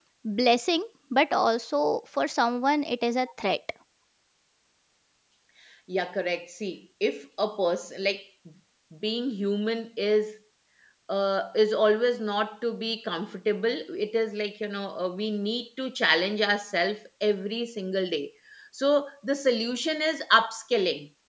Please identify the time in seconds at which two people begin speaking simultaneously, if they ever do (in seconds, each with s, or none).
none